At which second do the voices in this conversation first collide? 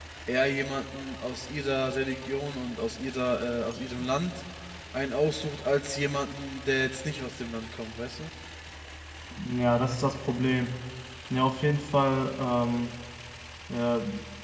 none

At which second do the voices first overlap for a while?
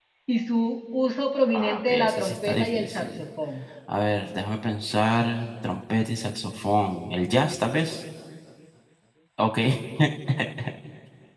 2 s

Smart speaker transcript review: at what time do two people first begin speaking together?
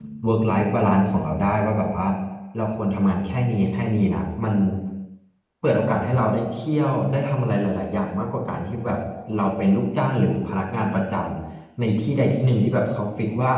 none

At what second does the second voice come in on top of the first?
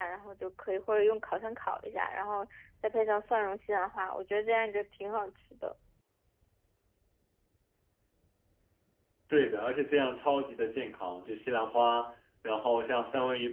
none

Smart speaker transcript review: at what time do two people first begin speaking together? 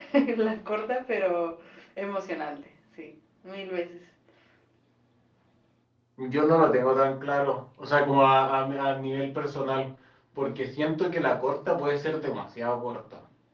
none

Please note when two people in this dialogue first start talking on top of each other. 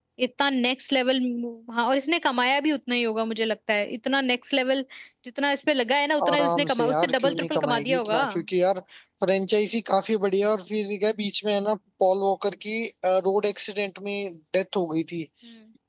6 s

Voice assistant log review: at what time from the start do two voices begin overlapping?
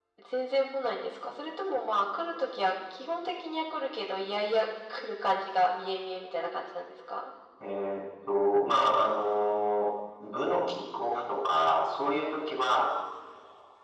none

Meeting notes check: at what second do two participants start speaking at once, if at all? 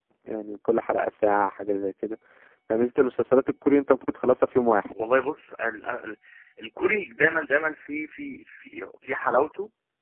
none

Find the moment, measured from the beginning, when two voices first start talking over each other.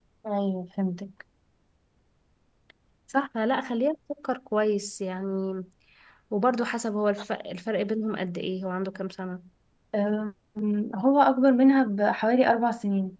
none

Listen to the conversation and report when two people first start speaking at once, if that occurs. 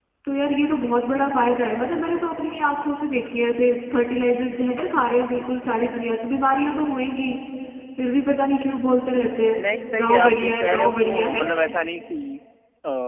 10 s

